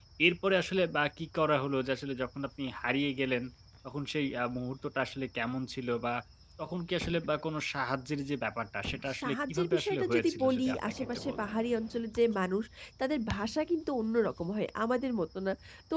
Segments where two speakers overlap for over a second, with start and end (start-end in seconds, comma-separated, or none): 9.2-11.4